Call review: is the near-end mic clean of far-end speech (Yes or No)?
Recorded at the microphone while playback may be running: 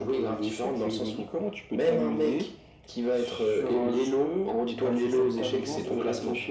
No